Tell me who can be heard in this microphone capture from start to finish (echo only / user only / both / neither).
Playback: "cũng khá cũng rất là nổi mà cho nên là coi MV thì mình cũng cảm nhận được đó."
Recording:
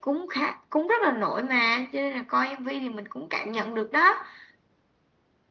echo only